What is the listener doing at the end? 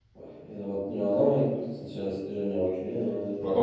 taking over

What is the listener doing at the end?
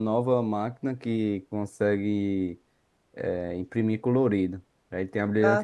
listening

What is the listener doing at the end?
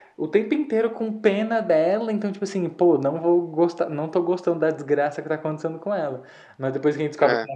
listening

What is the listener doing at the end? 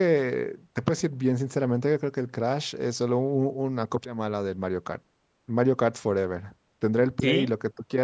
listening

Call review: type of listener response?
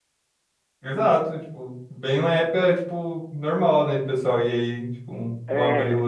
taking over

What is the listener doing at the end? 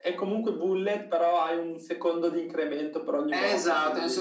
taking over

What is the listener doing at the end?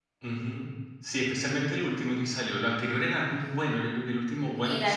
taking over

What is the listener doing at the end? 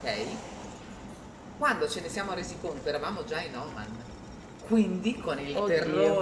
listening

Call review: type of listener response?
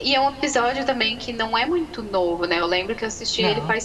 listening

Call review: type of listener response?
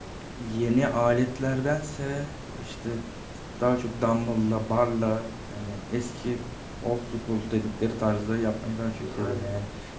listening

